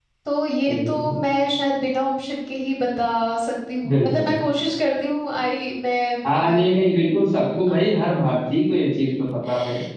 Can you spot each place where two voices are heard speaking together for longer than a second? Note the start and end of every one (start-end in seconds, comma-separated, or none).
none